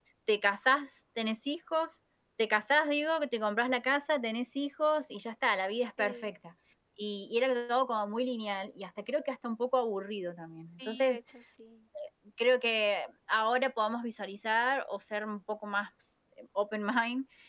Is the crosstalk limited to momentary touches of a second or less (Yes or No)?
Yes